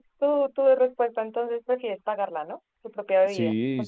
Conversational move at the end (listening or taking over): taking over